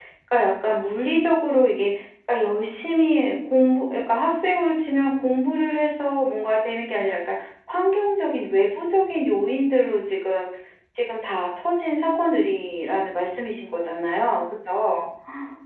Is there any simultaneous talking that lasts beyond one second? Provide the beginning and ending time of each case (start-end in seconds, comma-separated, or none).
none